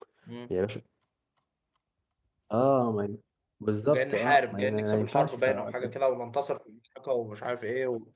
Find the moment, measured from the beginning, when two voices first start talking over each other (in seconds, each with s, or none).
3.9 s